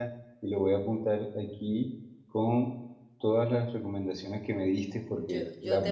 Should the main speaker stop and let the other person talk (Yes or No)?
Yes